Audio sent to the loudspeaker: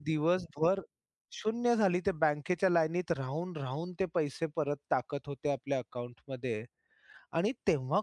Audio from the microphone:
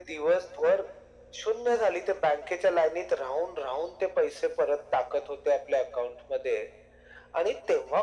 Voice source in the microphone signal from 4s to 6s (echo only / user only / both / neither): echo only